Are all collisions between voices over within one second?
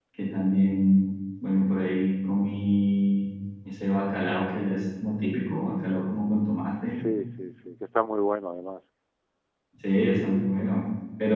Yes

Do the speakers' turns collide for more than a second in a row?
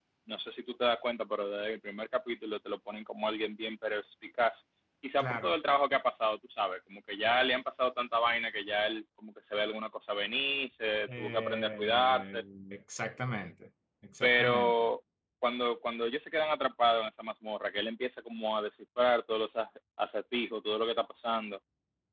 Yes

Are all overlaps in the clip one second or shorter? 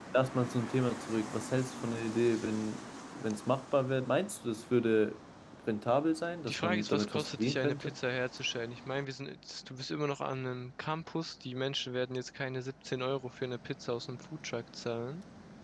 No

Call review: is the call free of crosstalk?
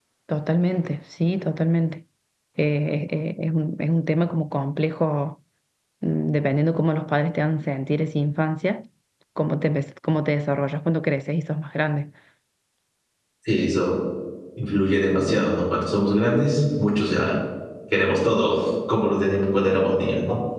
Yes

